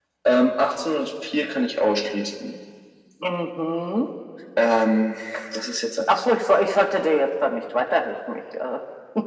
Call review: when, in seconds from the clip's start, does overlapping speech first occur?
none

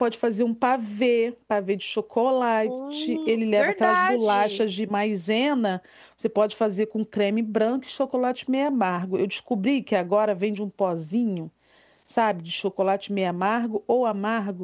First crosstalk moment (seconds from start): 2.6 s

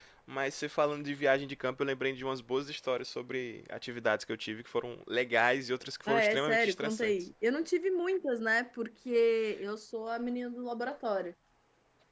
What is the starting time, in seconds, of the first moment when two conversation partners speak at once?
6.1 s

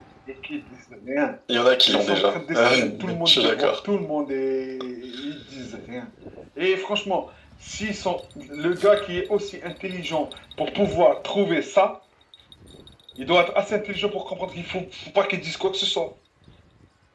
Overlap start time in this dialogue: 1.9 s

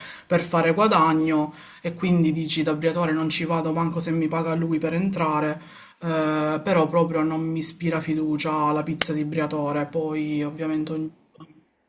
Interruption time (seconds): none

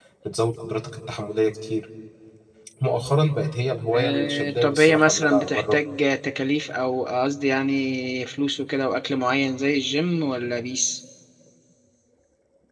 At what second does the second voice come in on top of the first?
3.9 s

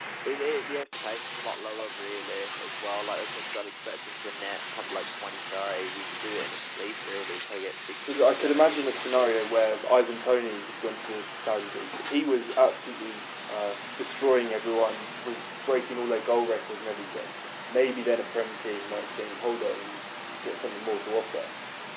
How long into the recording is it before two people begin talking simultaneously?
8.1 s

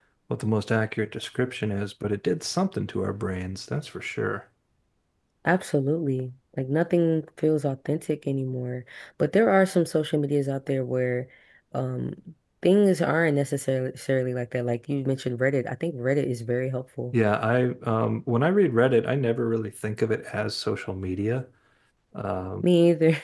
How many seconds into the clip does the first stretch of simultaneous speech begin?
none

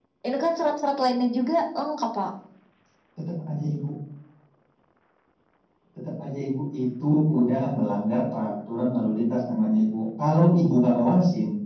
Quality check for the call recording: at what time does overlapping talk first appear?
none

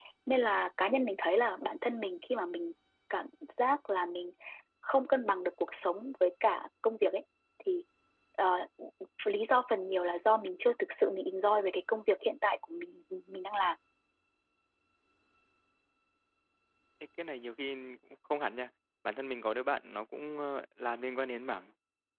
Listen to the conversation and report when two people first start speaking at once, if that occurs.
none

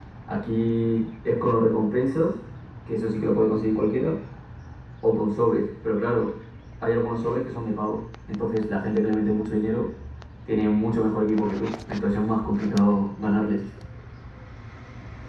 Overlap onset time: none

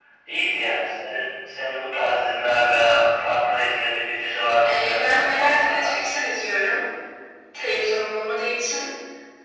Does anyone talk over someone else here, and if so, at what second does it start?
4.7 s

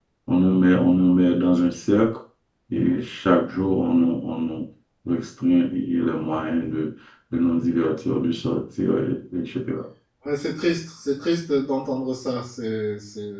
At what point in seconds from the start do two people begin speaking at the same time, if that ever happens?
none

